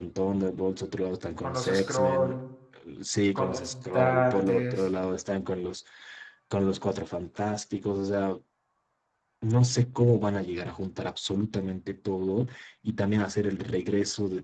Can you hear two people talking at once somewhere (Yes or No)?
Yes